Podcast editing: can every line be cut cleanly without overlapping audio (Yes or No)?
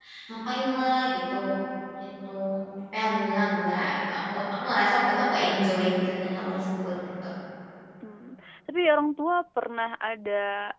Yes